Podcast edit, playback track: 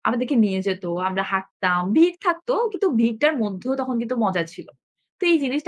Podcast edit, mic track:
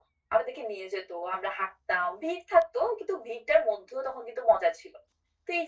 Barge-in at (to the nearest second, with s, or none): none